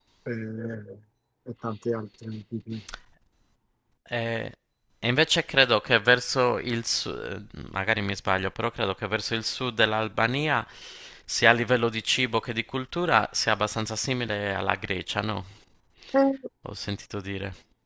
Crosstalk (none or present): none